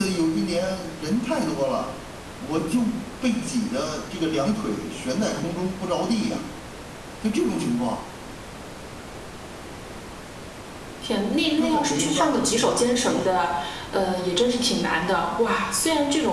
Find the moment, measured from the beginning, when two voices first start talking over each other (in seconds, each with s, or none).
11.6 s